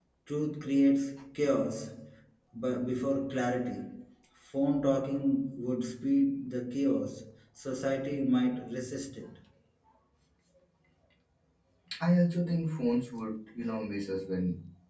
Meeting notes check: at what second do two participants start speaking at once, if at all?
none

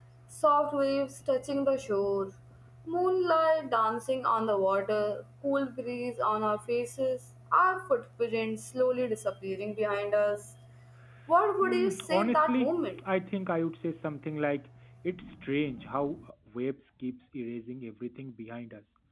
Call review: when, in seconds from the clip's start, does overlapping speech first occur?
11.6 s

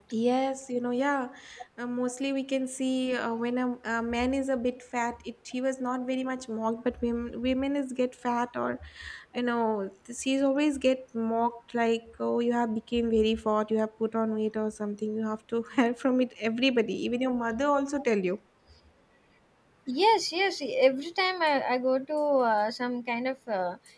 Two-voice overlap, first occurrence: none

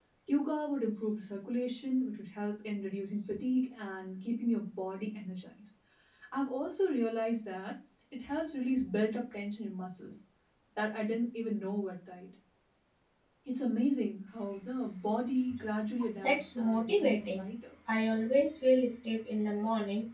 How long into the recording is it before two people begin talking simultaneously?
16.2 s

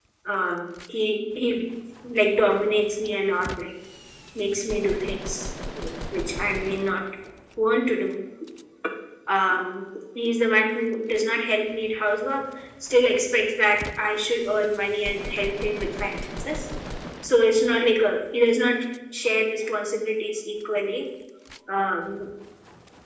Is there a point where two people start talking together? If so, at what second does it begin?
none

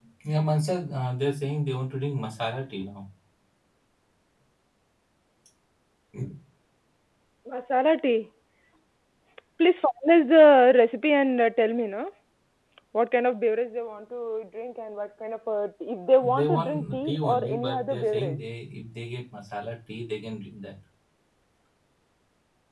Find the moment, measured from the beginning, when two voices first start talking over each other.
16.2 s

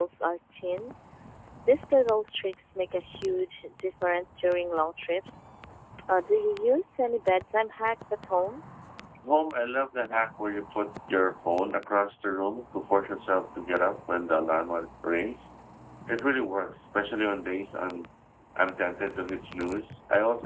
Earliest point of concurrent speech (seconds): none

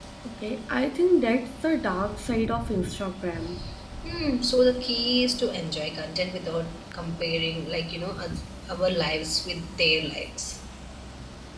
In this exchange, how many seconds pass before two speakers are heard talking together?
none

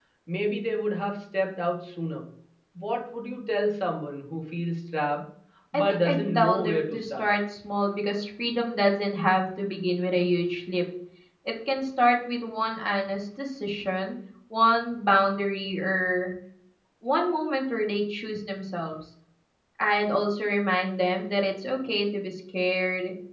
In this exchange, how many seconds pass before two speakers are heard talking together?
5.7 s

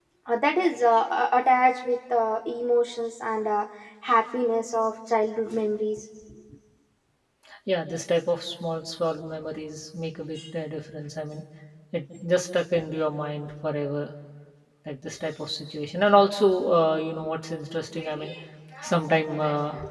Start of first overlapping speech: none

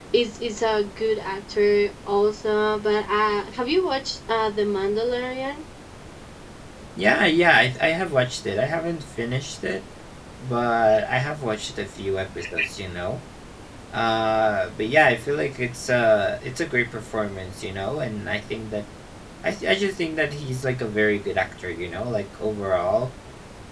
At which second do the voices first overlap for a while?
none

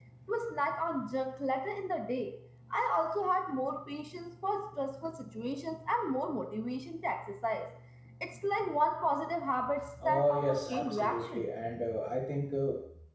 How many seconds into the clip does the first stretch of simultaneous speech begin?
10.1 s

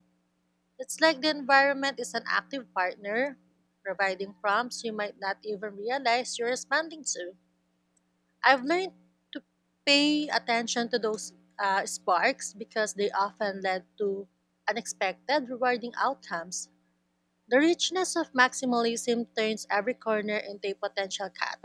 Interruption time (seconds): none

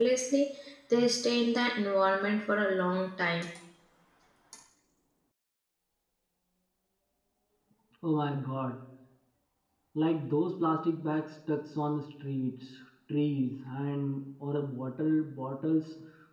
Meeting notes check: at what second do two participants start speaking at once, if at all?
none

